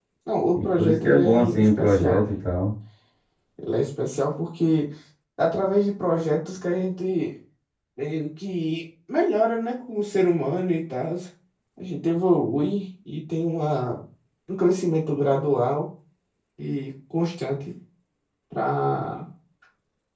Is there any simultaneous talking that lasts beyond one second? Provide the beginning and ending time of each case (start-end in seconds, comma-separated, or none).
0.6-2.3